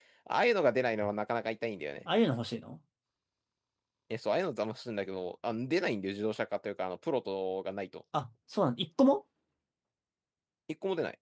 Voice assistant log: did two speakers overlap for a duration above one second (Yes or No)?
No